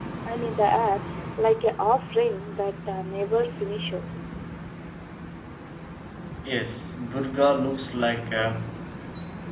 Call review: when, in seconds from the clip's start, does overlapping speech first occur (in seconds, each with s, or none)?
none